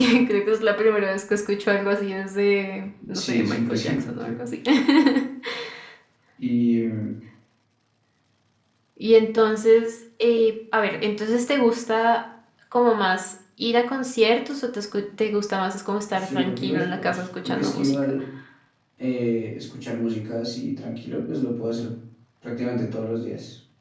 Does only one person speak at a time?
No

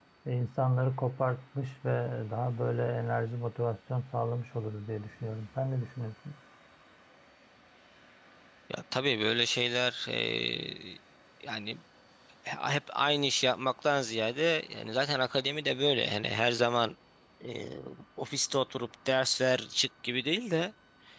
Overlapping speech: No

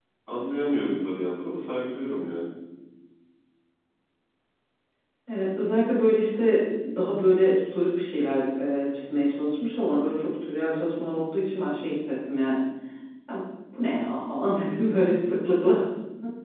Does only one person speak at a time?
Yes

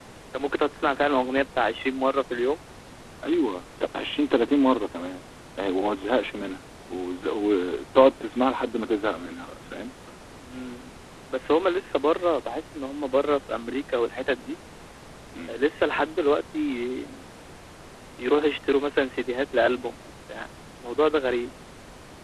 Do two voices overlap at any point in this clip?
No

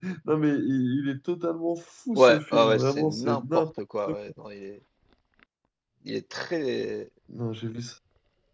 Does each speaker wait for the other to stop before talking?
No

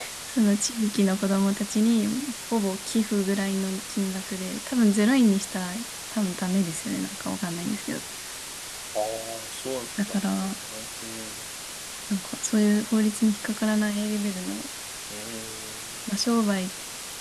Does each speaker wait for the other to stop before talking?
Yes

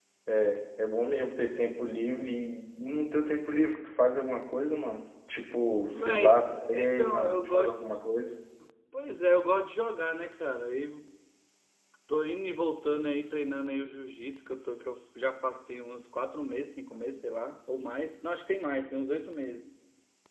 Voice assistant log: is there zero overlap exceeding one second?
No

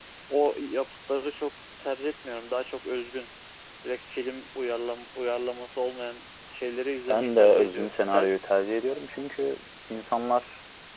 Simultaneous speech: Yes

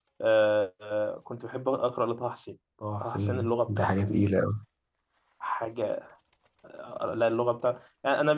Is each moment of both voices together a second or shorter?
No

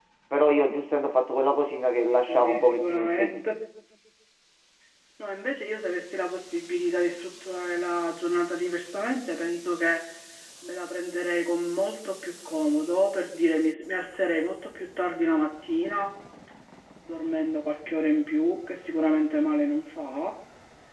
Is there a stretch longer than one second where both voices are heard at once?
Yes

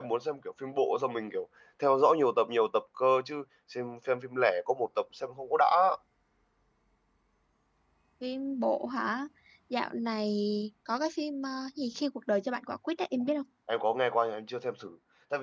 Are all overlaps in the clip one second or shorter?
Yes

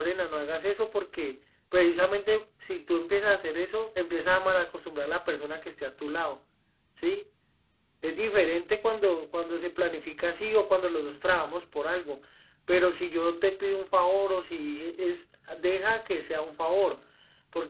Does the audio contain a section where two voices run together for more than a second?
No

